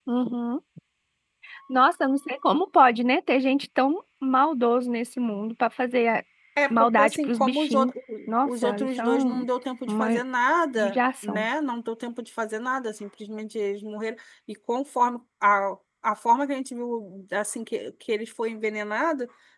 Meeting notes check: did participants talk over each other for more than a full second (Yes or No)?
Yes